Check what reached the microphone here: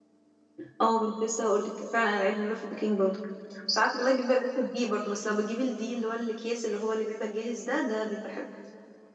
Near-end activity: present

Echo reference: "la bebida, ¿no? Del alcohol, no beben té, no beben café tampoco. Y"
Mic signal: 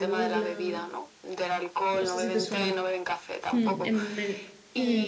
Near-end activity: present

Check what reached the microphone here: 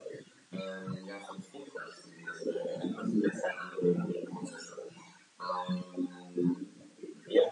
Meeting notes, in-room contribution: none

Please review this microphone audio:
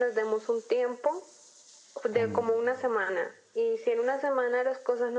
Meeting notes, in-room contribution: present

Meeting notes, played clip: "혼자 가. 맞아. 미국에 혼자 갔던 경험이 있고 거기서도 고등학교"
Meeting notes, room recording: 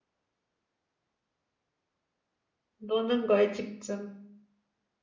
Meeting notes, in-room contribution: present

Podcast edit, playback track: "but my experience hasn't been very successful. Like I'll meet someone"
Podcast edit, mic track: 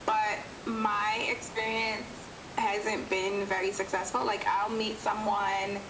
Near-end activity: none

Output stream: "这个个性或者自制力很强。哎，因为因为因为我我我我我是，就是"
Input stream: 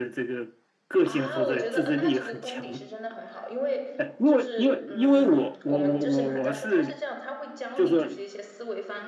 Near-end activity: present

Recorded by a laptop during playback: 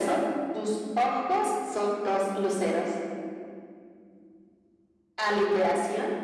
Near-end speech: none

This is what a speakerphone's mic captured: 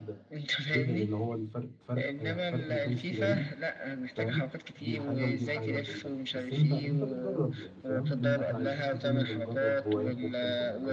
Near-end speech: present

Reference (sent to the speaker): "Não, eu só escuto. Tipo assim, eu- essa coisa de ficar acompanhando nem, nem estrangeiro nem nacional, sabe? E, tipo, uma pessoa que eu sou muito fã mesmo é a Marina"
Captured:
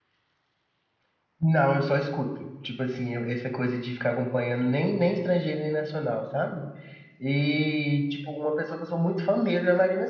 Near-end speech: none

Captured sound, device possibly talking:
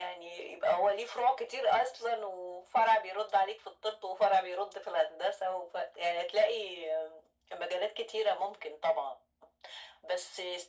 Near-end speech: none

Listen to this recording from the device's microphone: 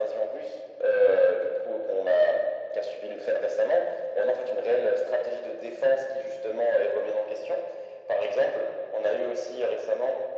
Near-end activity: none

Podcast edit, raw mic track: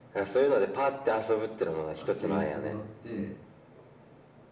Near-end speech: present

